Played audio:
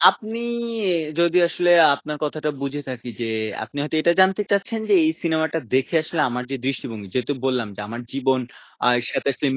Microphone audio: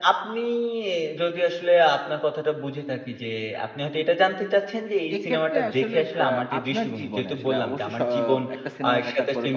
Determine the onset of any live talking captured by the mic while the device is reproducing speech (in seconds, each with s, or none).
5.2 s